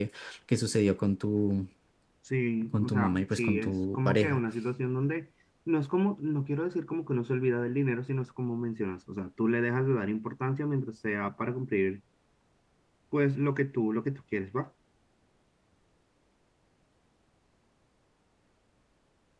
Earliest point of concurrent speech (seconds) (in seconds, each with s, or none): 2.7 s